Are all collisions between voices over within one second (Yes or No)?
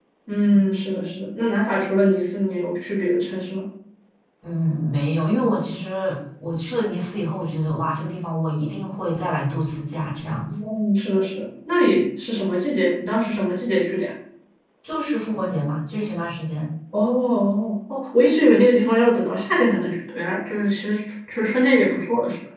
Yes